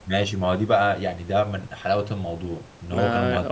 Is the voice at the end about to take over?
No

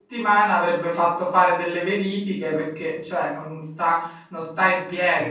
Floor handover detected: No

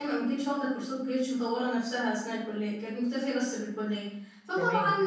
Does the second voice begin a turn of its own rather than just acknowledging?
No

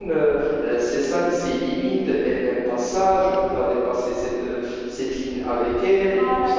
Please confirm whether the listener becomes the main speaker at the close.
Yes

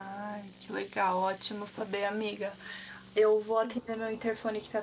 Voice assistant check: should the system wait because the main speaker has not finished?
Yes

